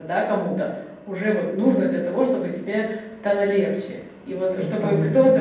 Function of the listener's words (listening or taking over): listening